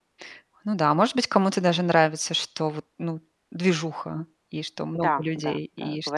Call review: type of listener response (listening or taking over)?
taking over